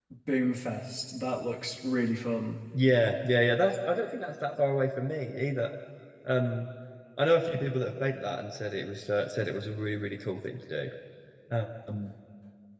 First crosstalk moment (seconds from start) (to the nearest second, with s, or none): none